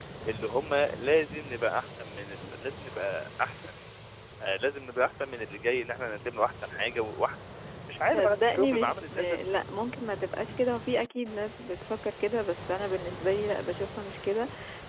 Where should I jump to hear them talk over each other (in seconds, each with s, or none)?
8.1 s